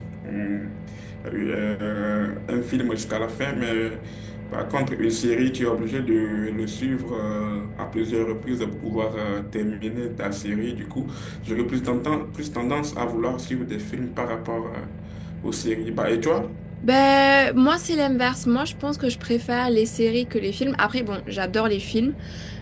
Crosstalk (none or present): none